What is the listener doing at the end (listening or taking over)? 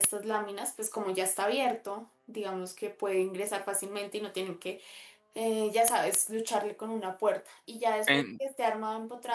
listening